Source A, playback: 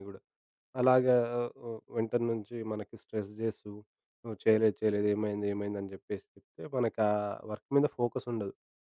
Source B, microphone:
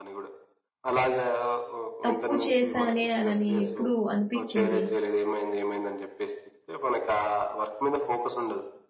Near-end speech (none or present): present